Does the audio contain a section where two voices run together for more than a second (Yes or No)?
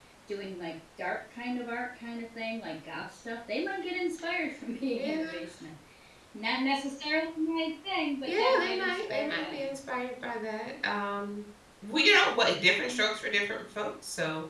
Yes